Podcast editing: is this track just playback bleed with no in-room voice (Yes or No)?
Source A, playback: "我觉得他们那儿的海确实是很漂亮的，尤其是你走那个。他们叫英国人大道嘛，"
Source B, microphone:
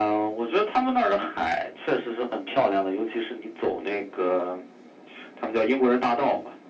Yes